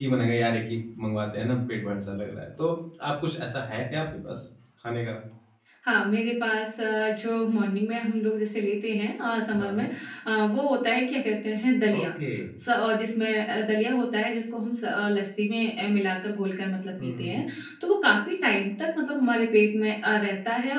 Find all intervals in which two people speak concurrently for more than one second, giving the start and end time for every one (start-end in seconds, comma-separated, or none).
none